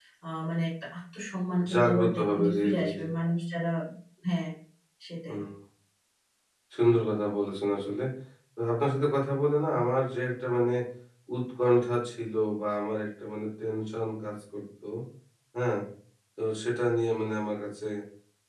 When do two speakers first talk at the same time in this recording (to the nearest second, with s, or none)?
2 s